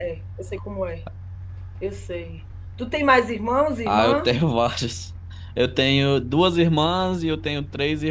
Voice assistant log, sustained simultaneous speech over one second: none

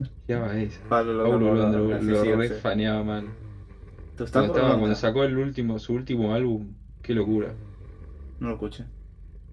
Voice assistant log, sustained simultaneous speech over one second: present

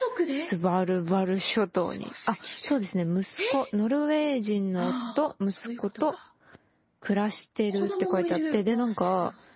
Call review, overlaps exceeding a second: present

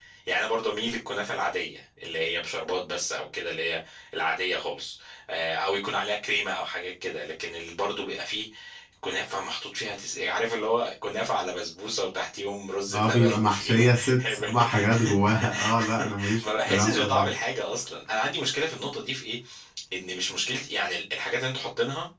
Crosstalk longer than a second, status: present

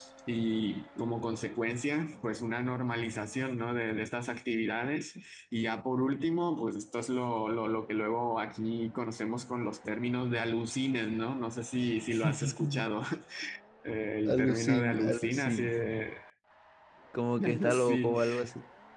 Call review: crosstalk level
present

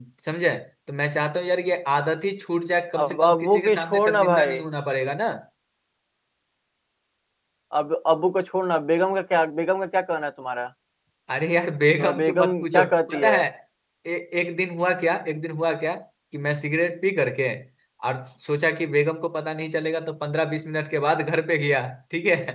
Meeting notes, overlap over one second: present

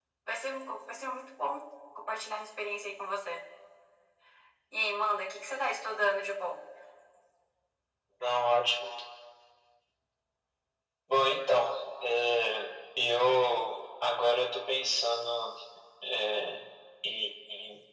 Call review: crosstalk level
none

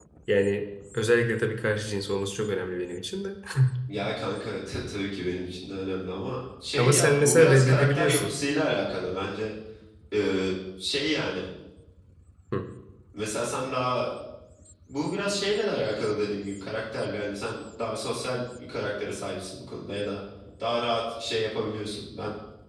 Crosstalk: present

